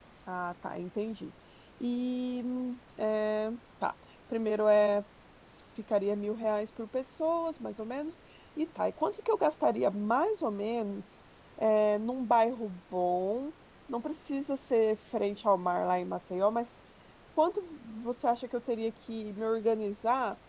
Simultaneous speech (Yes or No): No